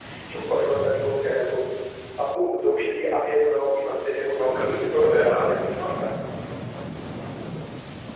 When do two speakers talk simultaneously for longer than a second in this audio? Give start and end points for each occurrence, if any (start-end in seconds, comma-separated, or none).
4.2-5.9